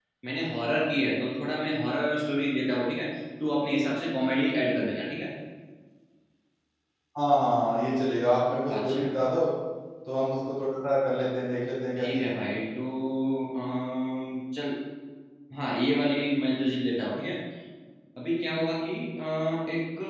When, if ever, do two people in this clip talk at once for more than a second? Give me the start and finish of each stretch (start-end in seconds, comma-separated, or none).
none